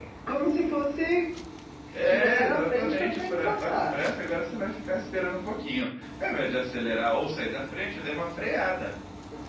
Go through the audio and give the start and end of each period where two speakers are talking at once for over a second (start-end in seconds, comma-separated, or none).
1.9-4.0